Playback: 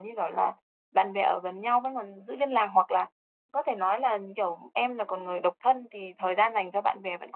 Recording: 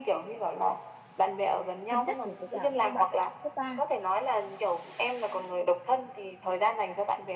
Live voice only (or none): thân nhất thì với cả các bạn cấp cấp ba